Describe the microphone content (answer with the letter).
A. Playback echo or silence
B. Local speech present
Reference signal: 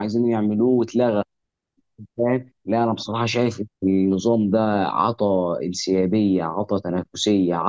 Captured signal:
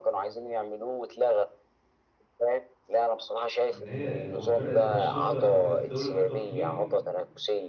B